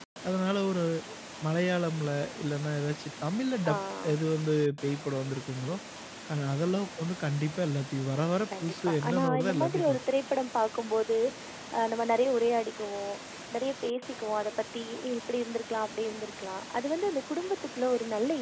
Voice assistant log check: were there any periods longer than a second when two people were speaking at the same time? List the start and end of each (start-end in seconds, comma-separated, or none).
8.6-10.0